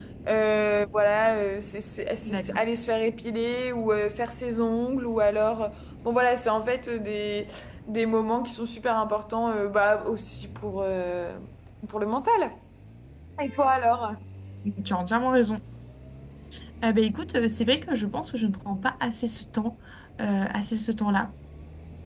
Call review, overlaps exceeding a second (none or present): none